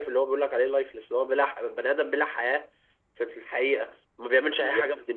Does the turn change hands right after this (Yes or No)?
No